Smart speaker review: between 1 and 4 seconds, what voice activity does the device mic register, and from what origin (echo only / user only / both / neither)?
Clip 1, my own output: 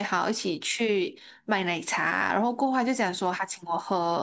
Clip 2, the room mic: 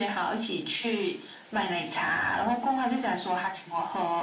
echo only